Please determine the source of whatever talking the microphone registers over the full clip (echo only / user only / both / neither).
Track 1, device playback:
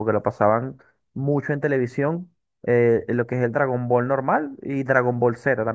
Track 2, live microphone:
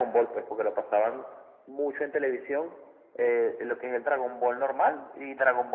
echo only